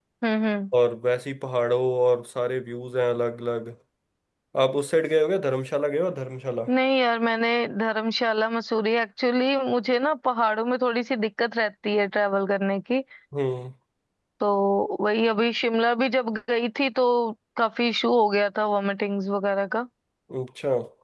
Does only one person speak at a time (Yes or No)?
Yes